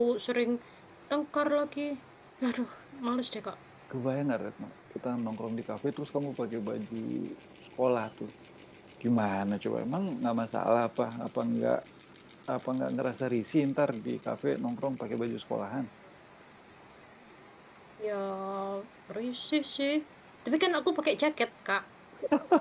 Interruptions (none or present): none